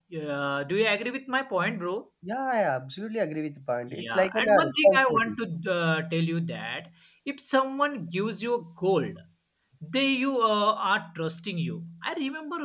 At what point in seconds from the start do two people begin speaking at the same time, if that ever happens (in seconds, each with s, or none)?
3.9 s